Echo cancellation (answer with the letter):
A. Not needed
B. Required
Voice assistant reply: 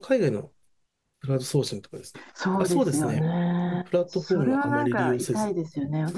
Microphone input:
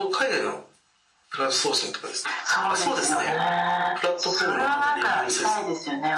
B